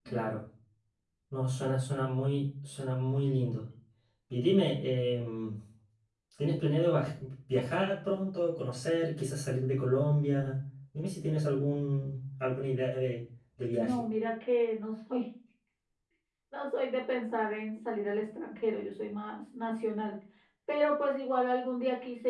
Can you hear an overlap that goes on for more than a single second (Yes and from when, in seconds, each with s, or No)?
No